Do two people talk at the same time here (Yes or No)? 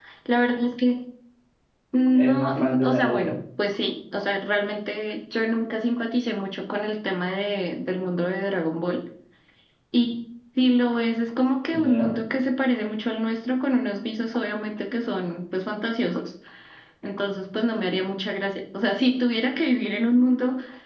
Yes